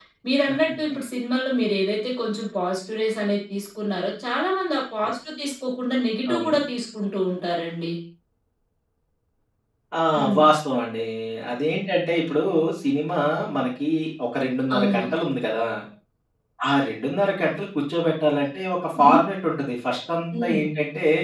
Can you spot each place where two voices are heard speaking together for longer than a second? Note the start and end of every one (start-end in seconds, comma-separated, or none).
none